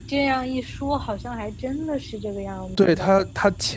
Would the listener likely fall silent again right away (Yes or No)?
No